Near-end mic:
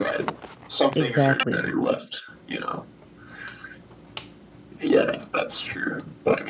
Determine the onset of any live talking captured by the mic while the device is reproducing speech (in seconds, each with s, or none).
0.9 s